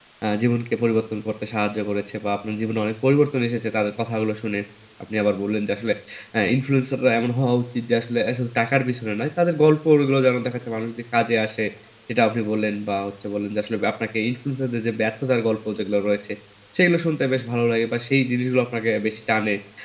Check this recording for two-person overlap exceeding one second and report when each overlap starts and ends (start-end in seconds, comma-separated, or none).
none